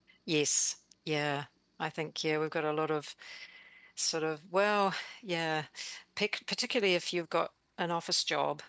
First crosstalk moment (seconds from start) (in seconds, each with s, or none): none